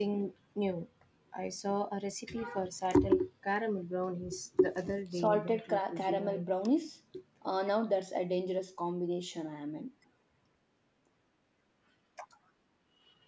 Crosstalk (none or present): present